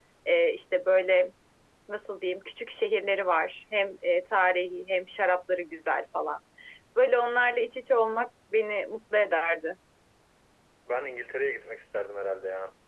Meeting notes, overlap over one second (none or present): none